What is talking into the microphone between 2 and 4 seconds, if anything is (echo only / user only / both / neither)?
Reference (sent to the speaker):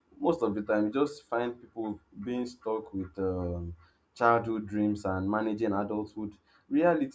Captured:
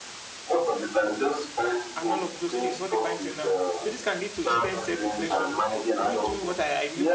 both